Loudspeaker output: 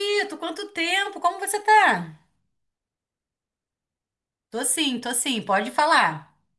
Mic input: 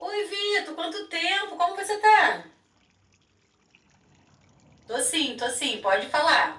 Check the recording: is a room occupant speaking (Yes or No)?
No